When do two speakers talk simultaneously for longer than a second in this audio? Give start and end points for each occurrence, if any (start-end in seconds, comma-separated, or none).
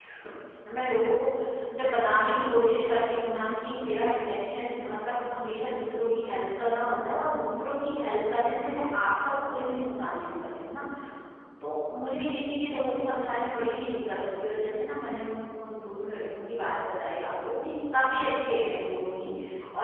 none